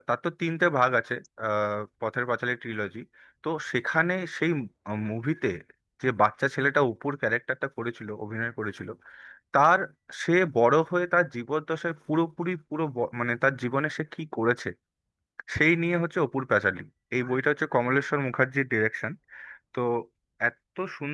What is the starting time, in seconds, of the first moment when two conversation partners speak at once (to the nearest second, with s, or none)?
none